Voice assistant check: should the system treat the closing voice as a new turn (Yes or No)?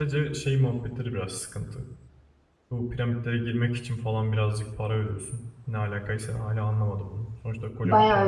Yes